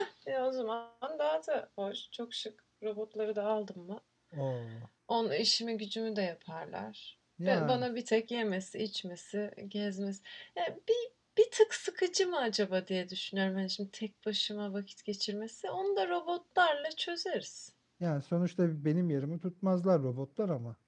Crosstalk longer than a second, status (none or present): none